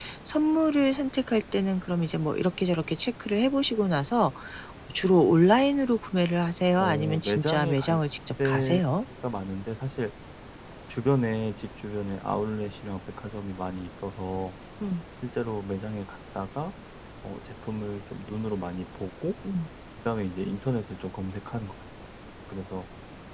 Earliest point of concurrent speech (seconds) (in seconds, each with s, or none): 6.8 s